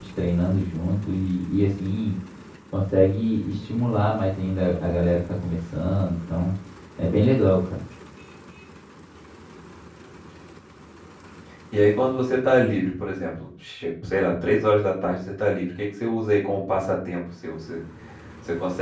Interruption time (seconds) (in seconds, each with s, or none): none